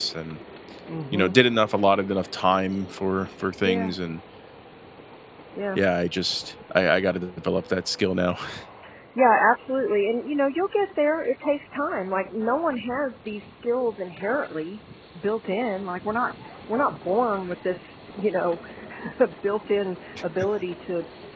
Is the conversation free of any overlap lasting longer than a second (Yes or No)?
Yes